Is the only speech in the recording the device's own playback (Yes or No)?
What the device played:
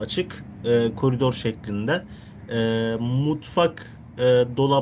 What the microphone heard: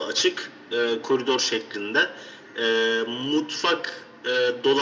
Yes